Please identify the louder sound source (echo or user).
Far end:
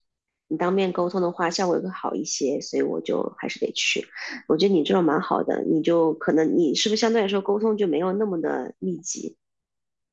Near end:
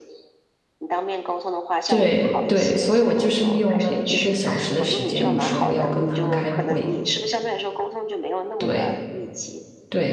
user